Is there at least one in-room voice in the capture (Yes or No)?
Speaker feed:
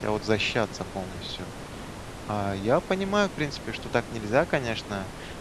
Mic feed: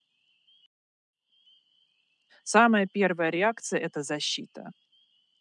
Yes